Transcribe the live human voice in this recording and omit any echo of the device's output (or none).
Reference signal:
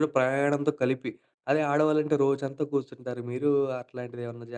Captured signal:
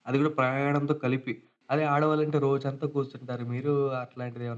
none